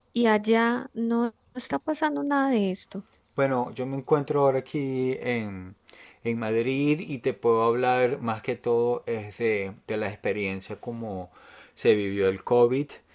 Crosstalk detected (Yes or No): No